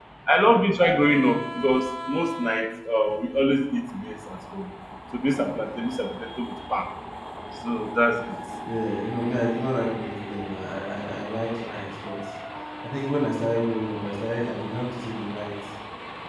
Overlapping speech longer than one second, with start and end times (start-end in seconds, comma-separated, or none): none